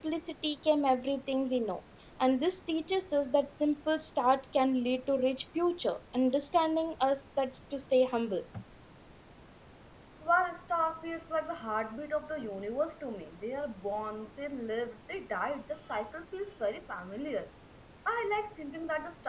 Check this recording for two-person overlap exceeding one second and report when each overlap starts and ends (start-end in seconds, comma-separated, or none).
none